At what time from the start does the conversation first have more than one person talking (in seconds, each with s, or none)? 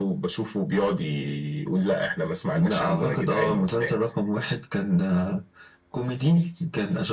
2.5 s